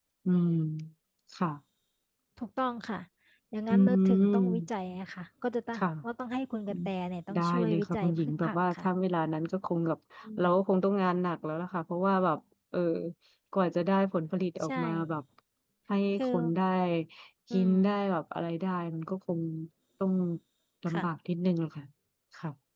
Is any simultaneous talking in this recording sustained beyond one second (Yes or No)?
Yes